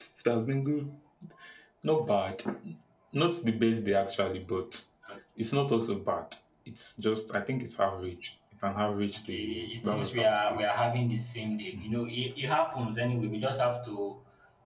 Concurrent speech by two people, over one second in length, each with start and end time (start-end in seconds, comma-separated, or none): 9.2-10.6